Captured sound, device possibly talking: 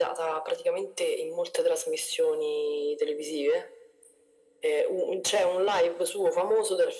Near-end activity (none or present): none